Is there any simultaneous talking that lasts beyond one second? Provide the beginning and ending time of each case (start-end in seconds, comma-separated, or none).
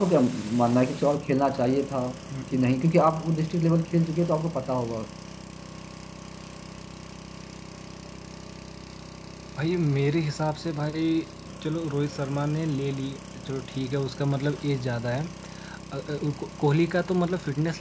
none